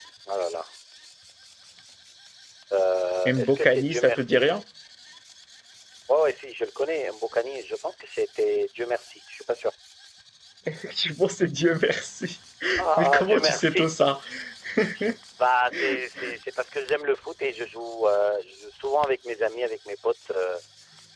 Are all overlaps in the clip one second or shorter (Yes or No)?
No